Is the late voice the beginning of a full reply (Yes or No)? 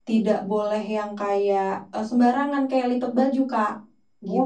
Yes